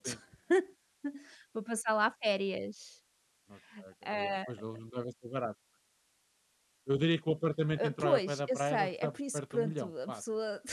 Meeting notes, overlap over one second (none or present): present